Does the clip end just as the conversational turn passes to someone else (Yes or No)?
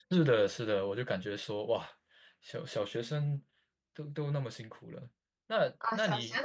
Yes